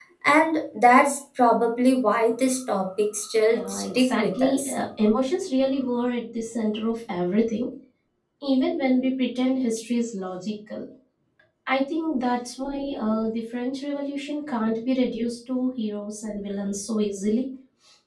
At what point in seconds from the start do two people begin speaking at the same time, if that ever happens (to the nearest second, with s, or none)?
4 s